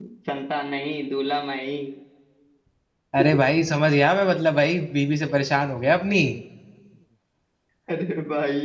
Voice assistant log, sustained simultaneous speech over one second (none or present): none